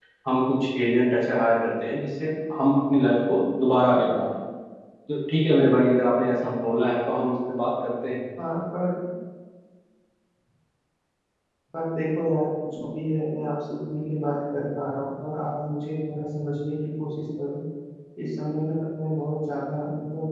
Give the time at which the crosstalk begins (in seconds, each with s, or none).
none